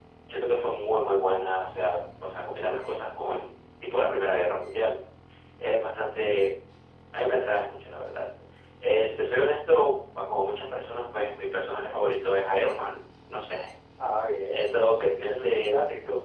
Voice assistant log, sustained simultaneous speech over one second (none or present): present